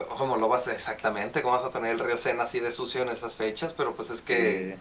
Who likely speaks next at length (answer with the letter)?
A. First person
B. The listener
A